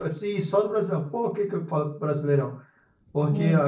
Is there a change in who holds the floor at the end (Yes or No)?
No